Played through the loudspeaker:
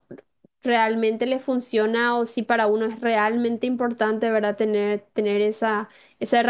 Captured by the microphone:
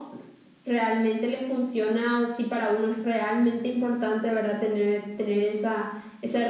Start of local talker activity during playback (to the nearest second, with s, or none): none